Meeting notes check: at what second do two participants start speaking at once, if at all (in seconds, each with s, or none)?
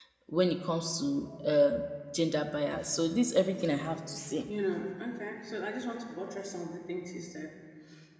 none